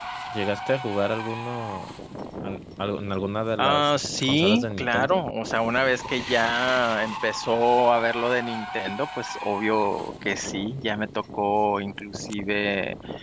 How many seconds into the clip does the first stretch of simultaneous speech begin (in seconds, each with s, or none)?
3.6 s